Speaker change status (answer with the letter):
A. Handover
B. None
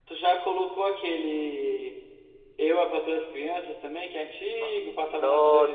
A